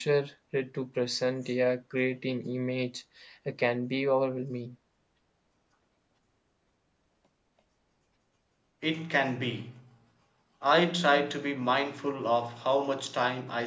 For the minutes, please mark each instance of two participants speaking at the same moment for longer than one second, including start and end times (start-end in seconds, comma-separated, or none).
none